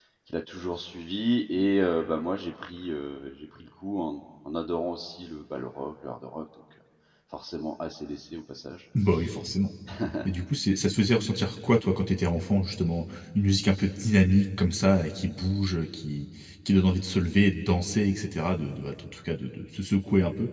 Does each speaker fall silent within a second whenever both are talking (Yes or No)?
Yes